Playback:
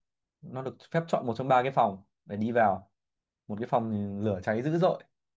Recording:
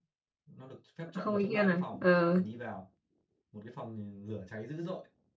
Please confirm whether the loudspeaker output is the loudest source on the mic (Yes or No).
No